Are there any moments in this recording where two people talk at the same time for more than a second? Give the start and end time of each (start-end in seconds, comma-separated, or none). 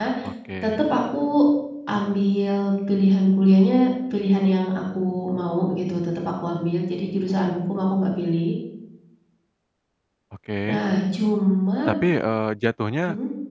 none